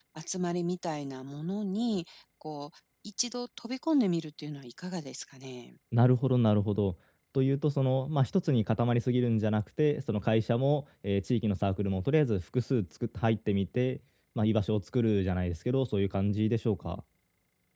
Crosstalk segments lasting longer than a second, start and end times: none

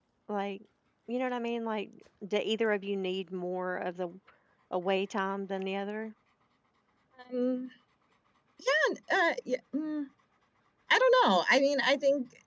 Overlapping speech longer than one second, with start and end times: none

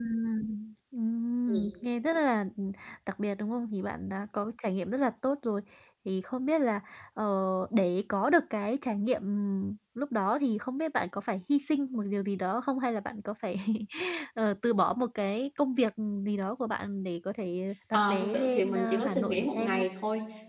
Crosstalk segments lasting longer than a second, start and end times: 17.9-19.9

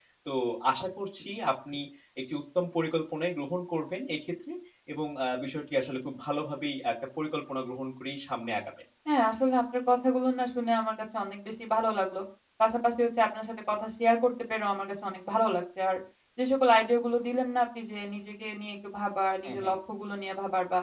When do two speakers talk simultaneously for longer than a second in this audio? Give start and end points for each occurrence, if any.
none

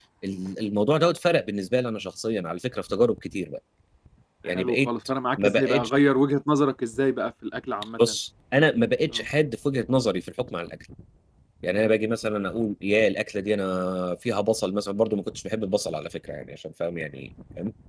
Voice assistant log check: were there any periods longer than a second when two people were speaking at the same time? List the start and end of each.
none

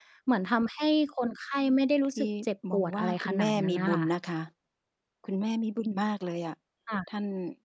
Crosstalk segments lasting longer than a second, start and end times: 2.7-4.1

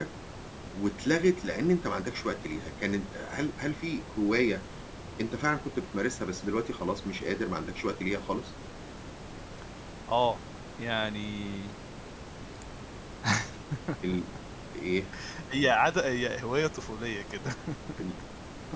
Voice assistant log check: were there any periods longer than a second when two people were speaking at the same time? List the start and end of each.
none

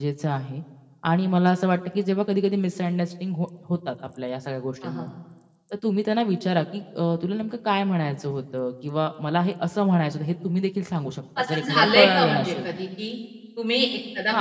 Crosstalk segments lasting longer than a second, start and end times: 11.4-12.7

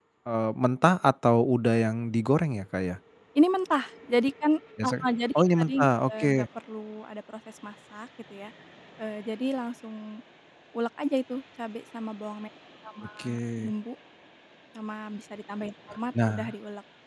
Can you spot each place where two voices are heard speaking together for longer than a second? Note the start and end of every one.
none

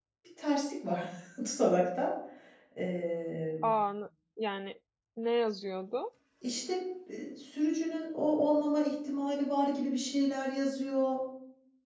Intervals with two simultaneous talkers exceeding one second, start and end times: none

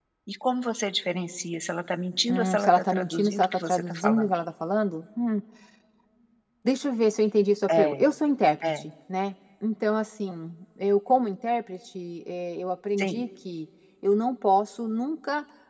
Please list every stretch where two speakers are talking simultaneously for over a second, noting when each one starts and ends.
2.3-4.3

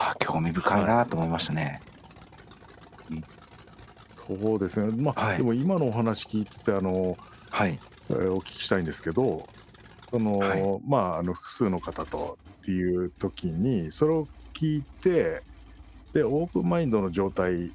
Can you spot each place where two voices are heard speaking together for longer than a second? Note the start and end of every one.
none

